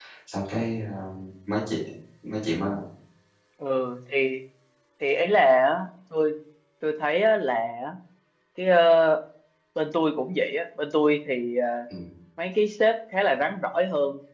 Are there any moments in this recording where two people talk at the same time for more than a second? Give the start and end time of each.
none

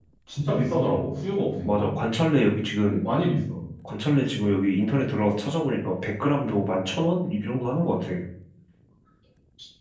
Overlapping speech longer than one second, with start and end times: none

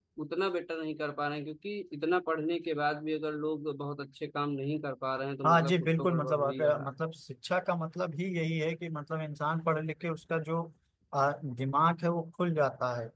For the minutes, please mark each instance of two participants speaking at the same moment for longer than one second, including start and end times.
5.4-6.9

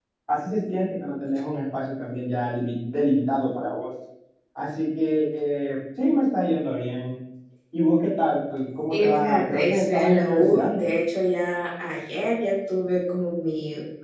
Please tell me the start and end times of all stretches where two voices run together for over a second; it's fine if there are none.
8.9-10.8

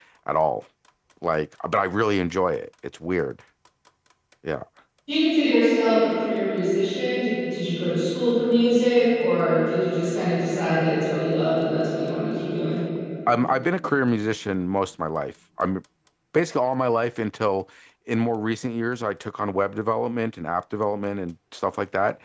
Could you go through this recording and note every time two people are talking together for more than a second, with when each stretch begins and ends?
none

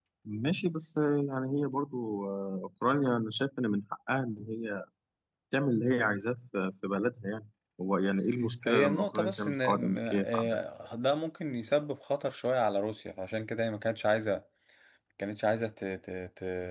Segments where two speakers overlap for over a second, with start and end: 8.6-10.6

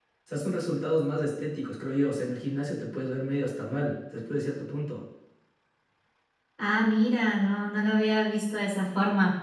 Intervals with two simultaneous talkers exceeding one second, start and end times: none

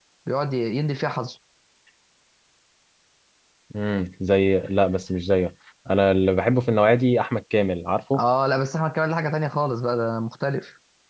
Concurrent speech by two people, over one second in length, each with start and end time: none

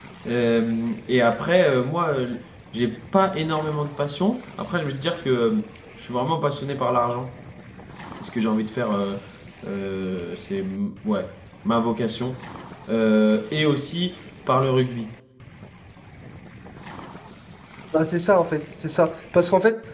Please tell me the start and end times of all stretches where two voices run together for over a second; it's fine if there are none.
none

